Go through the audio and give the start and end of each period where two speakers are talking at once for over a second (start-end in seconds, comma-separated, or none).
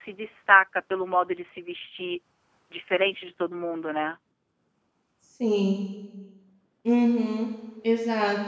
none